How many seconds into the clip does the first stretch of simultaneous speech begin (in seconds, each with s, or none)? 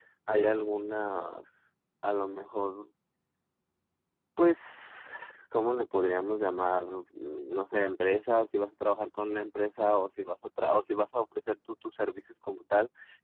none